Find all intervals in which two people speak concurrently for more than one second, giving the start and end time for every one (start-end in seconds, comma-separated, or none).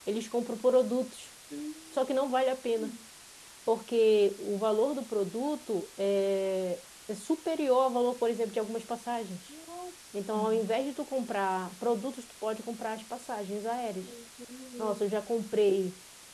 none